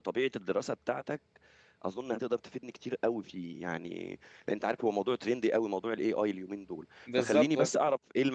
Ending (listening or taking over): listening